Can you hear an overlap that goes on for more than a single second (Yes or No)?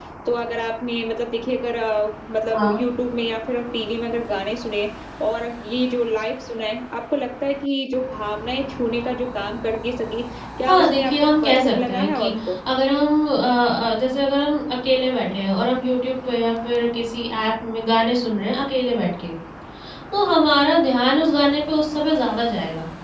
Yes